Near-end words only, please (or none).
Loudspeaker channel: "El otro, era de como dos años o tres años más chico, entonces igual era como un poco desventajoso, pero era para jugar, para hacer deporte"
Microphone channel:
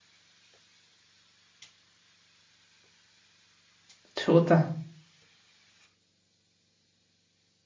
Chuta.